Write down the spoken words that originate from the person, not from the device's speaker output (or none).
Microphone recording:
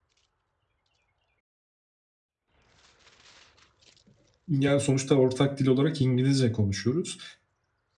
yani, sonuçta ortak dil olarak İngilizce konuşuyoruz.